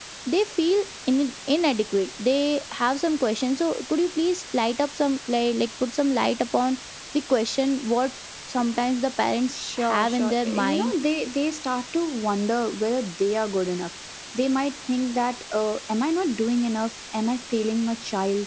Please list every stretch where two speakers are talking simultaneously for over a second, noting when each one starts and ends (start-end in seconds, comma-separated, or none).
9.5-11.0